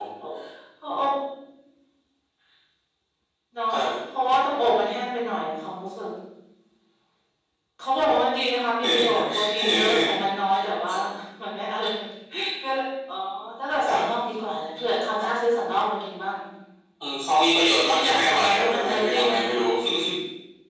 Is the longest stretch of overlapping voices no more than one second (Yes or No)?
No